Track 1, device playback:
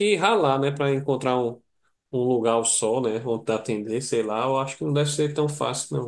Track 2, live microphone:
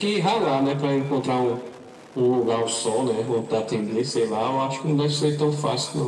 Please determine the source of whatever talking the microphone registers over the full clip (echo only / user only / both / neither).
echo only